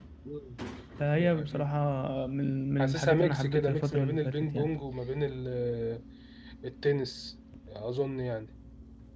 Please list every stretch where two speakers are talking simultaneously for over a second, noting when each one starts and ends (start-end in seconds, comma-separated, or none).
2.8-4.7